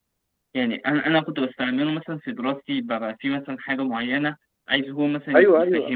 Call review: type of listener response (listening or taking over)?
listening